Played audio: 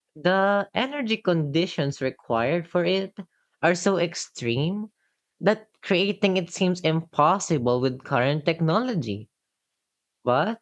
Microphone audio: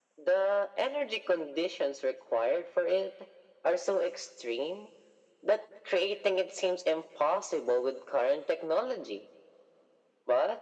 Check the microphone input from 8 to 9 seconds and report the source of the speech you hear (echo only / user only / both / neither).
echo only